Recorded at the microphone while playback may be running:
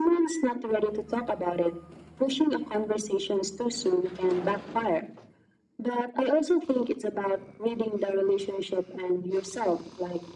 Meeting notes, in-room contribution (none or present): none